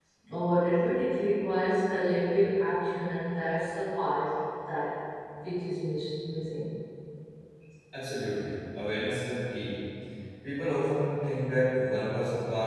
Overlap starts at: none

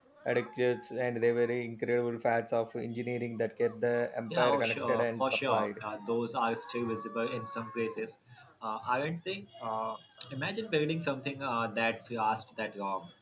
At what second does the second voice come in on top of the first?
4.3 s

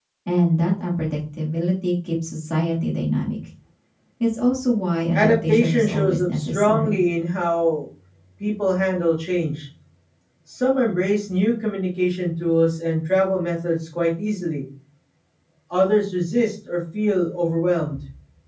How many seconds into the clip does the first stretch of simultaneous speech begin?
5.1 s

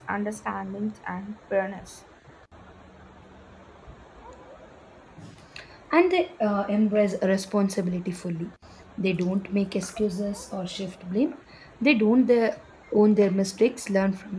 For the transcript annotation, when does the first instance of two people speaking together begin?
none

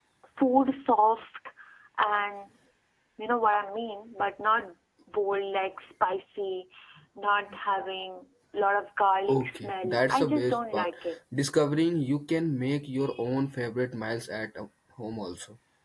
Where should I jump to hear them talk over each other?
9.3 s

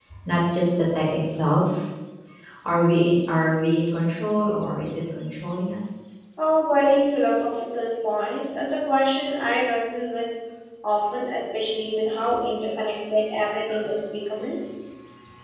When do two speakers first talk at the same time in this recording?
none

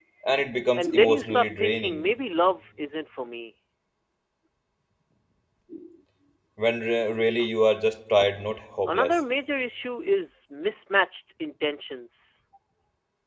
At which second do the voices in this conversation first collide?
0.7 s

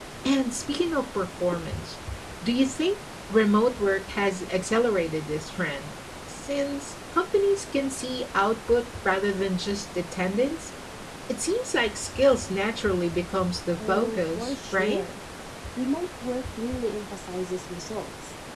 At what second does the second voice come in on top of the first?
13.8 s

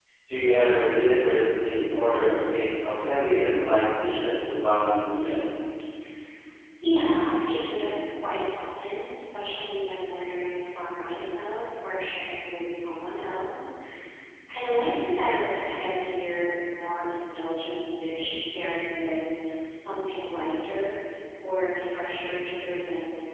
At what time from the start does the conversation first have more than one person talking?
none

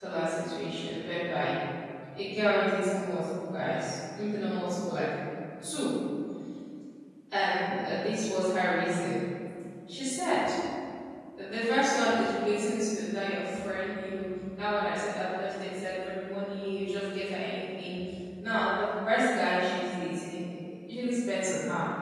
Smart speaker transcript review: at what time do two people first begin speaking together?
none

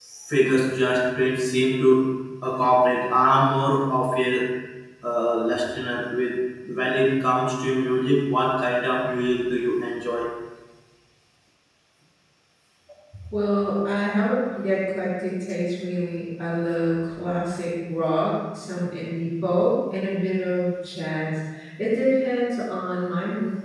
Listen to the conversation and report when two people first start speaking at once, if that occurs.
none

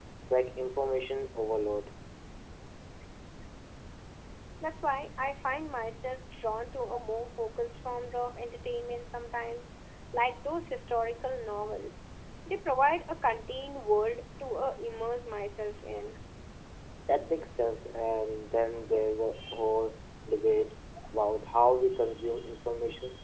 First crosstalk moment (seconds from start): none

